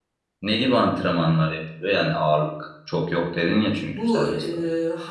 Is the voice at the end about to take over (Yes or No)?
Yes